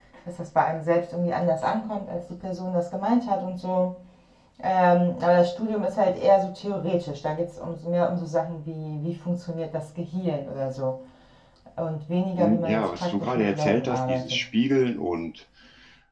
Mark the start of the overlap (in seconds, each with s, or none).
12.4 s